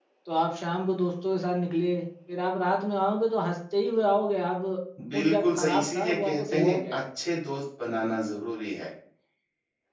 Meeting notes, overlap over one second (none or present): present